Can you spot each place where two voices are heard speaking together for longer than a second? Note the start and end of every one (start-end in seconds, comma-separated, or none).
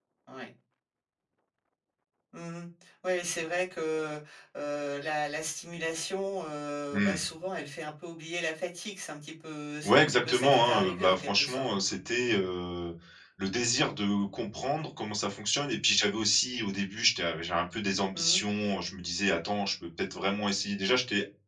9.8-11.7